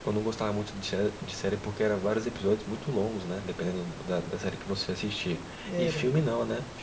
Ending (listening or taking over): listening